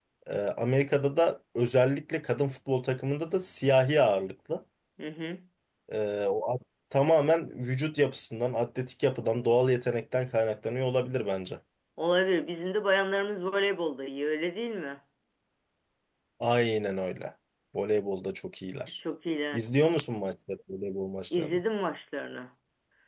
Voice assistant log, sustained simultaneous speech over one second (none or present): none